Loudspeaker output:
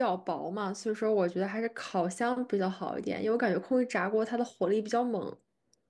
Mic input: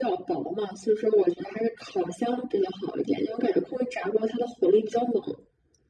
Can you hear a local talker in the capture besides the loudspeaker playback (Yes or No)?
No